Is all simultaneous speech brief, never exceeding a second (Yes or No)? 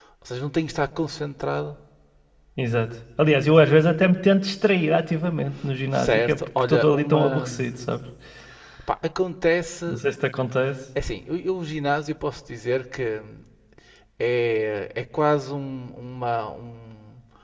No